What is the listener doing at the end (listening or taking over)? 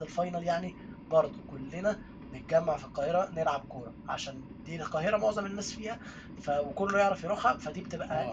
taking over